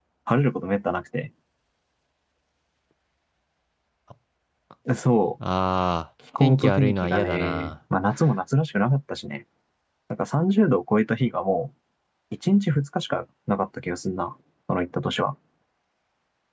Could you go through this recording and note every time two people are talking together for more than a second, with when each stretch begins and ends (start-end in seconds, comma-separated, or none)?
6.4-7.7